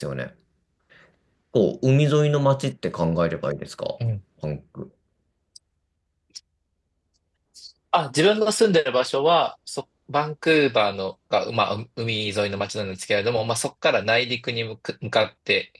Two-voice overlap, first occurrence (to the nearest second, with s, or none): none